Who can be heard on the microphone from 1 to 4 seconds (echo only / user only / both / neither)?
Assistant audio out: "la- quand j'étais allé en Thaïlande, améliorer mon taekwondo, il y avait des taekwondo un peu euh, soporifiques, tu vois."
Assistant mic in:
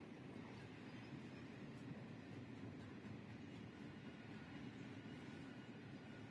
neither